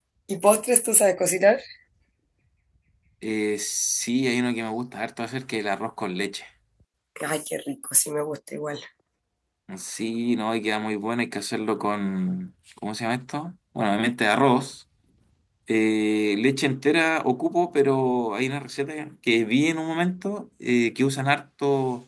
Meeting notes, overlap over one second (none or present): none